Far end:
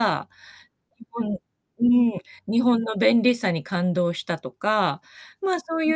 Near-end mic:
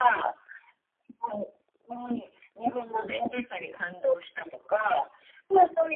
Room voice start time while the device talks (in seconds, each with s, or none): none